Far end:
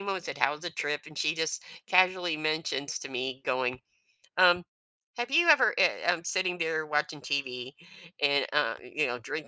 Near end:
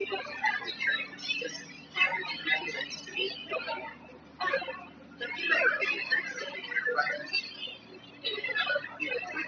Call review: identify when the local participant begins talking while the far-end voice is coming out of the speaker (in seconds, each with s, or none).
none